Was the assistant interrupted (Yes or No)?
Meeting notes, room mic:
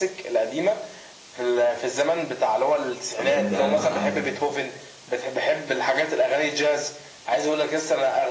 Yes